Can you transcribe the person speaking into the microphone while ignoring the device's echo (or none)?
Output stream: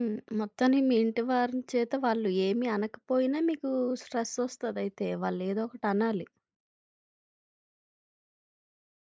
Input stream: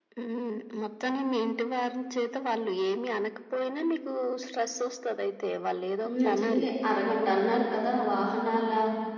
హ్మ్. నిజంగే అరగంట అన్నారు కదా! వాహనాల